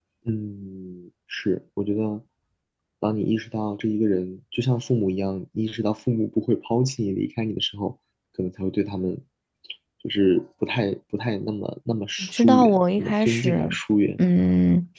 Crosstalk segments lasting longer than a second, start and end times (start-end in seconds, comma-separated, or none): 12.2-13.7